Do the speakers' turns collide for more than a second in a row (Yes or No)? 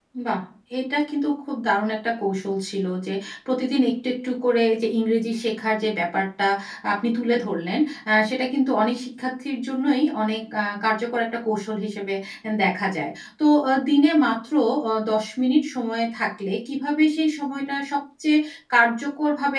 No